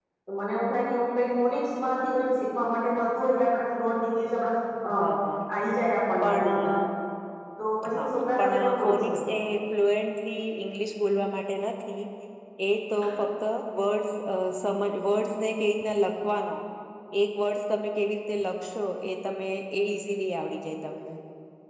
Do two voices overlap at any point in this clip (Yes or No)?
Yes